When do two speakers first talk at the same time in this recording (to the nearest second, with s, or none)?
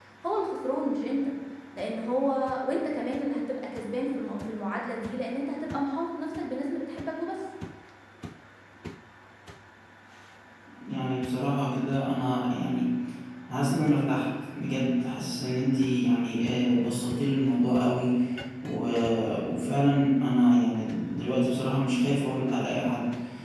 none